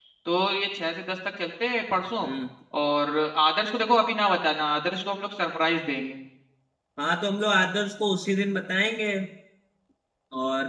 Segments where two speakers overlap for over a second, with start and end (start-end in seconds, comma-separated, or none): none